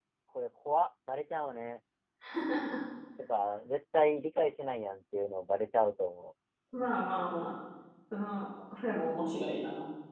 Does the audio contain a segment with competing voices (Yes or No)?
No